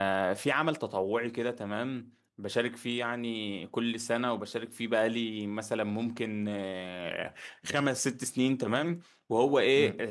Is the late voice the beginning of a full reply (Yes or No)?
No